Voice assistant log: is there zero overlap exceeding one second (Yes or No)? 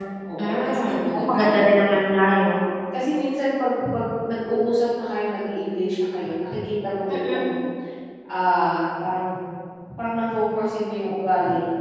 No